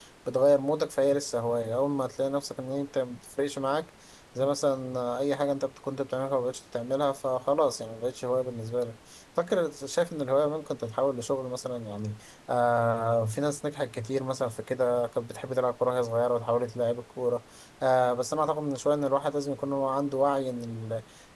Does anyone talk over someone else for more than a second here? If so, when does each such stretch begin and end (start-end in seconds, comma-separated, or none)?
none